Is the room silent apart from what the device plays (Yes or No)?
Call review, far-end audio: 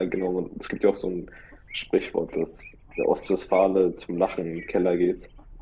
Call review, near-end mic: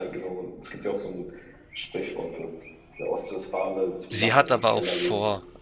No